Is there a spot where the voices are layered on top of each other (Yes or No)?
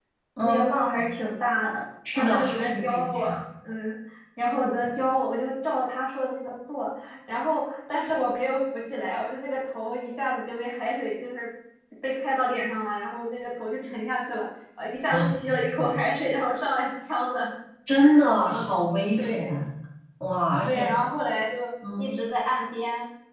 Yes